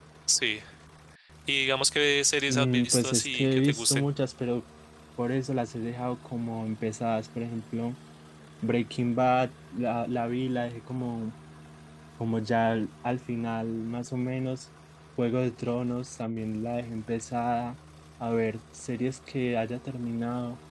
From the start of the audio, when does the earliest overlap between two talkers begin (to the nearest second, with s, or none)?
2 s